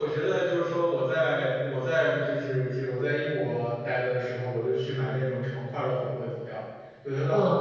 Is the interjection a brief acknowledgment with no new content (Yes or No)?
Yes